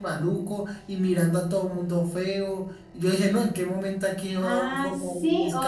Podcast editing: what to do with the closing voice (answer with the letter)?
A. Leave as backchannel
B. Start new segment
B